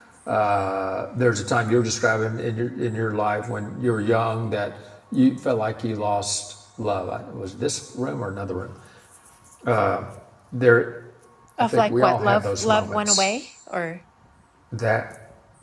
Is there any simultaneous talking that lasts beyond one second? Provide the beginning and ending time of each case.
11.6-13.3

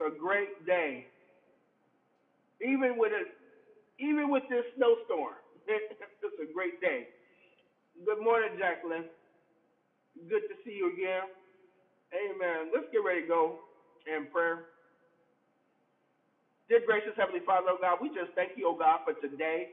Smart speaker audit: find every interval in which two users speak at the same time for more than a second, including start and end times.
none

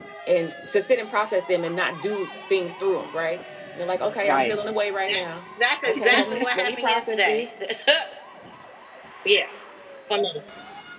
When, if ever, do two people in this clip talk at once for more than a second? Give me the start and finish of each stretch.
5.8-7.5

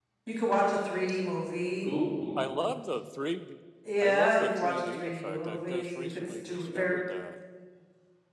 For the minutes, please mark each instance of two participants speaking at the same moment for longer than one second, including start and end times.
4.0-7.0

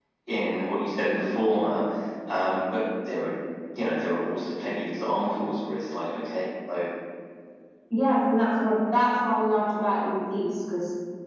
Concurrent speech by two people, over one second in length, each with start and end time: none

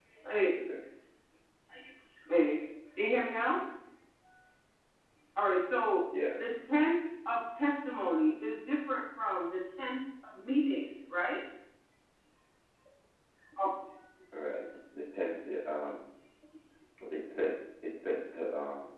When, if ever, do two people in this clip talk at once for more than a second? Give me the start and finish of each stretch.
none

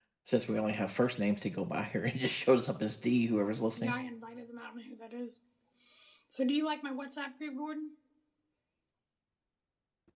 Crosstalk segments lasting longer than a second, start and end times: none

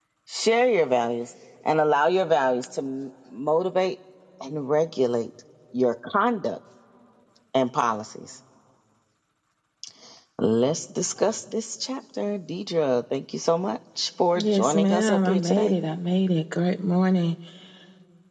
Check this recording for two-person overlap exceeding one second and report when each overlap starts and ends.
14.4-15.7

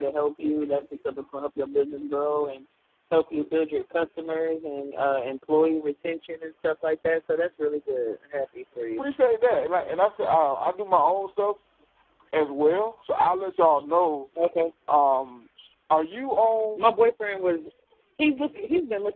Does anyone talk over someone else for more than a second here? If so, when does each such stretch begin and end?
none

